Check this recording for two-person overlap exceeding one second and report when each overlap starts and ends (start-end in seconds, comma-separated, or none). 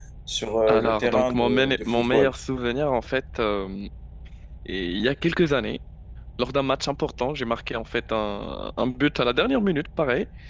0.7-2.3